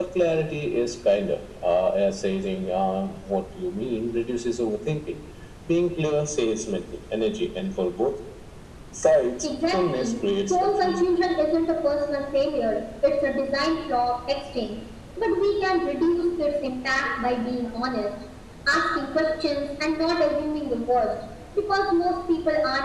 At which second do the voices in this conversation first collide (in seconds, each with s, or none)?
9.4 s